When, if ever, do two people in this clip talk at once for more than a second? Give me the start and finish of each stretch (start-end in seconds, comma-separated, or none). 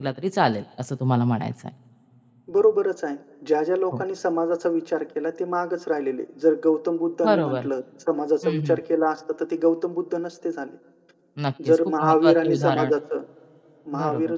11.7-12.9